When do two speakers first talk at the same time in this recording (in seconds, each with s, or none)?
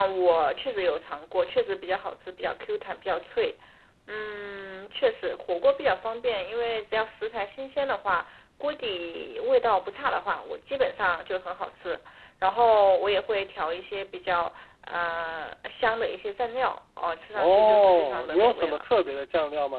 17.4 s